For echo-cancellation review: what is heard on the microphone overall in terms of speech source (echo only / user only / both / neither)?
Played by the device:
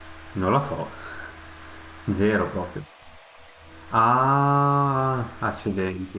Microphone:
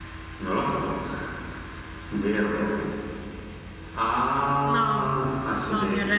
both